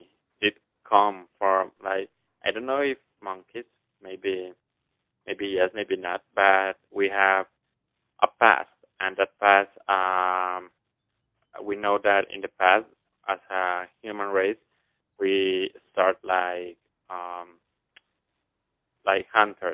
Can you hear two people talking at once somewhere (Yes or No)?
No